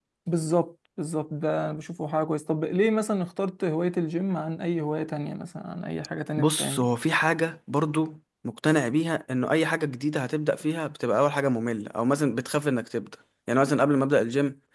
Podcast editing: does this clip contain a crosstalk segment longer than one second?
No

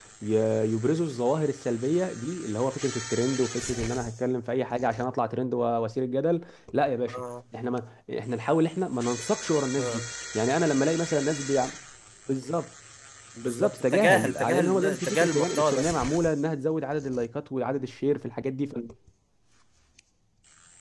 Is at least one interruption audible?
Yes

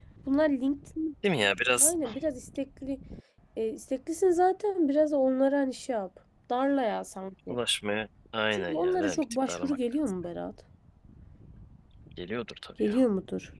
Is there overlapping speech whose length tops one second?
Yes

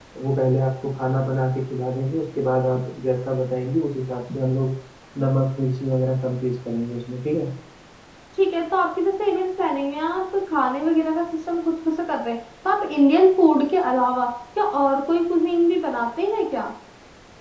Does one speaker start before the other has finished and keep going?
No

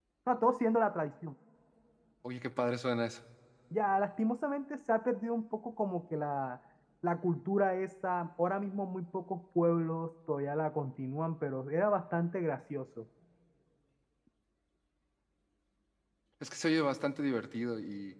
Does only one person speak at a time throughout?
Yes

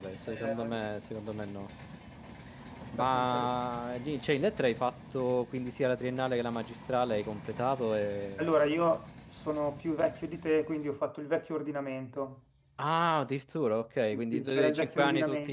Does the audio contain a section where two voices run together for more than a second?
Yes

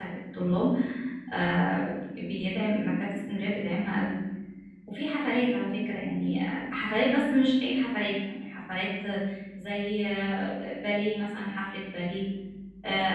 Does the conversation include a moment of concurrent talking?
No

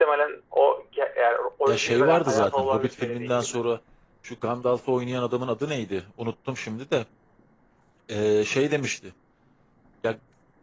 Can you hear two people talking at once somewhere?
Yes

